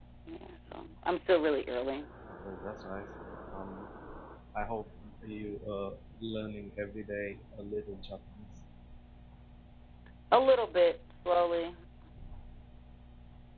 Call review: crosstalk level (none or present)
none